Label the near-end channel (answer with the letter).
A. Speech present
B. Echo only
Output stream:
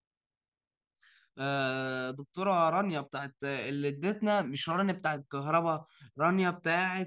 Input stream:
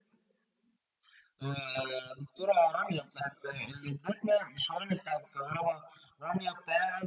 B